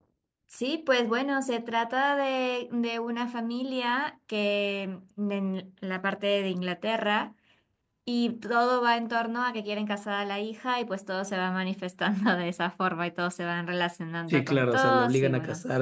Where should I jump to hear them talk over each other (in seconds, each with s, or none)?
14.3 s